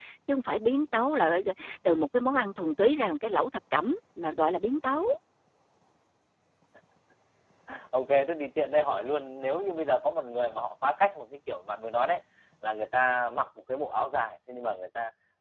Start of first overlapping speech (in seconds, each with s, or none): none